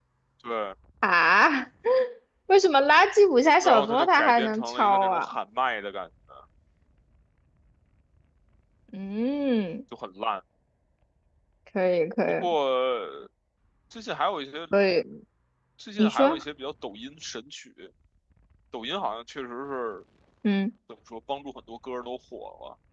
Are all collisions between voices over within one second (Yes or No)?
No